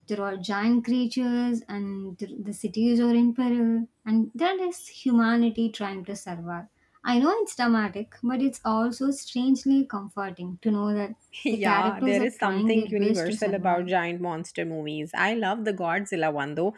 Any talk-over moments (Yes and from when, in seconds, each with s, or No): Yes, from 11.5 s